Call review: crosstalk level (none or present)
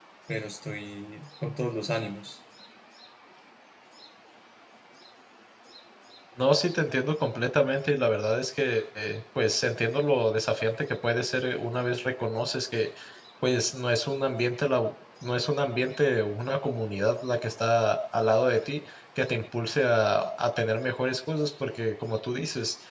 none